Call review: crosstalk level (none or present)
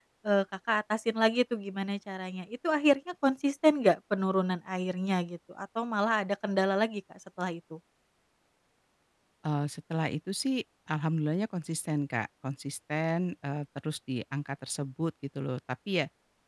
none